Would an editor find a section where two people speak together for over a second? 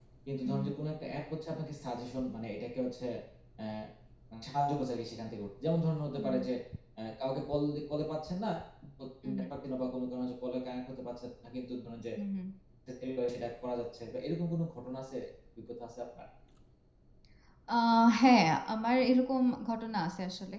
No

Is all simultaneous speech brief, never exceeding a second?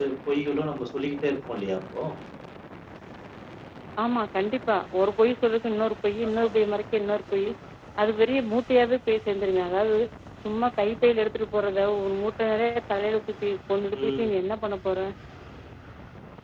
Yes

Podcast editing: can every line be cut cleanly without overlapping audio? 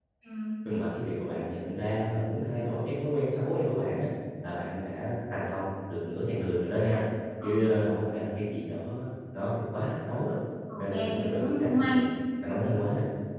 No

